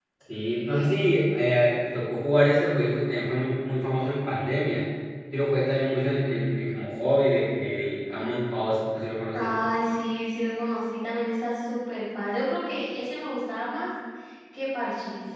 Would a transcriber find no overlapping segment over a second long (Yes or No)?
Yes